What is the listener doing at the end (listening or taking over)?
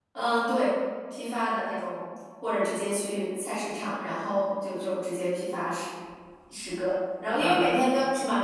listening